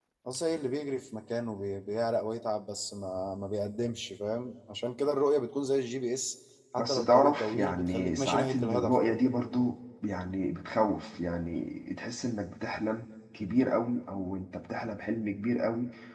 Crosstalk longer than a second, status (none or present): present